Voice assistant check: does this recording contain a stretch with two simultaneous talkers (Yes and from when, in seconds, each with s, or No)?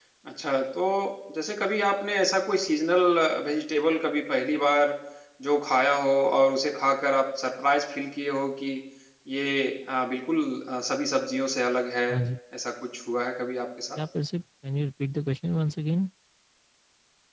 No